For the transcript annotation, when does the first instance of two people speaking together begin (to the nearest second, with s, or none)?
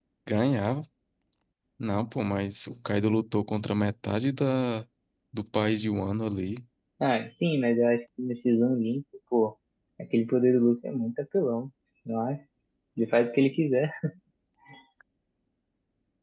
none